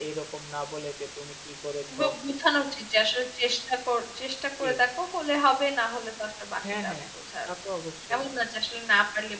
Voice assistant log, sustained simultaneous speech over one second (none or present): none